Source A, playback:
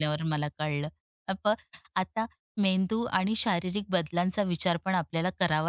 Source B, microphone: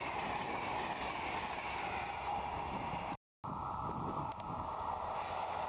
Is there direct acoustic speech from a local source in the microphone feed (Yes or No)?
No